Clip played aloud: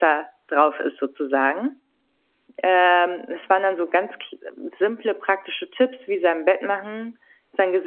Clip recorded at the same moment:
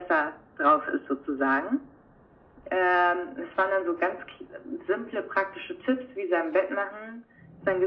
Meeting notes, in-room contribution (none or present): none